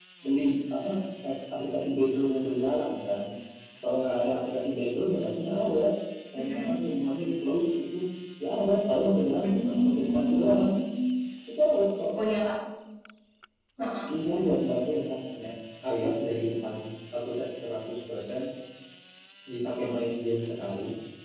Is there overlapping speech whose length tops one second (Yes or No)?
Yes